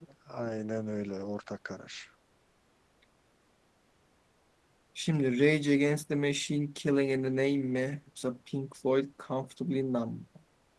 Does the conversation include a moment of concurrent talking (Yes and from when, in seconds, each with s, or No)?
No